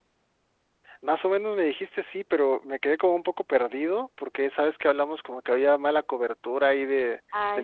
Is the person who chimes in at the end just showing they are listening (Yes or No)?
Yes